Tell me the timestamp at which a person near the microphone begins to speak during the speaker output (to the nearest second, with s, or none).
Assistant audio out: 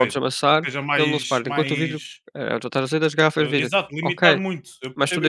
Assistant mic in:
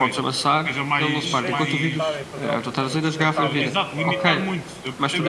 1 s